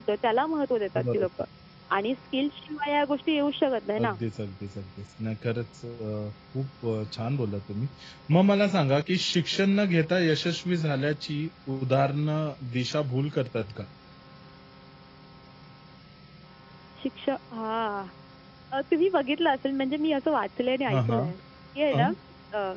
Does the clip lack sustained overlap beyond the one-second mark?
Yes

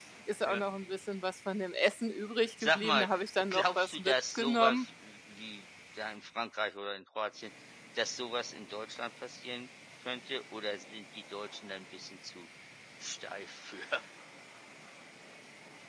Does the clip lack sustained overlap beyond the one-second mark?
No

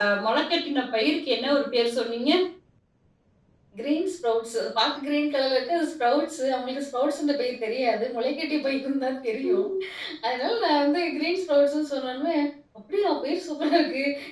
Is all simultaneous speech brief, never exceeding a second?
Yes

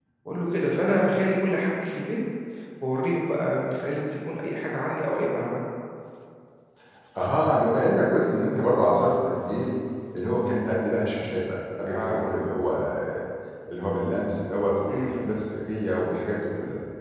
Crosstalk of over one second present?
No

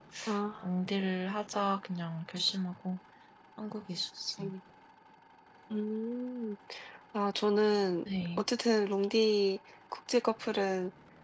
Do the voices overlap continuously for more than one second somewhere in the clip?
No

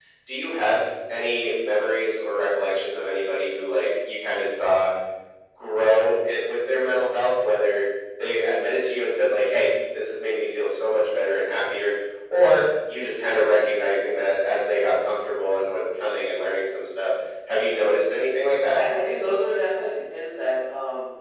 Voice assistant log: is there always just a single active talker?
Yes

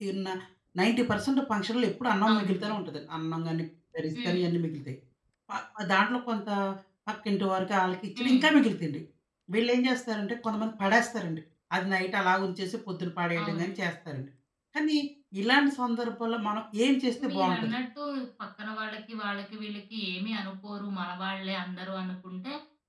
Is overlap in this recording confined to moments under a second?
Yes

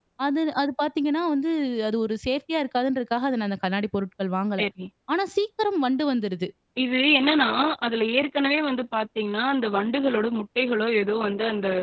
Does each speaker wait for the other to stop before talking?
Yes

